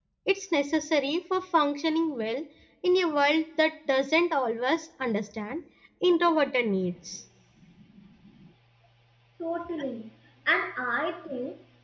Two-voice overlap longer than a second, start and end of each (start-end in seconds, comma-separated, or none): none